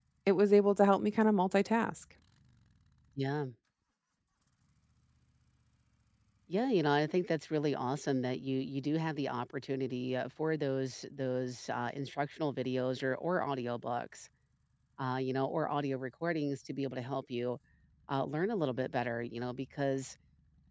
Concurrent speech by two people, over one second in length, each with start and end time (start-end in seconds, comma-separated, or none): none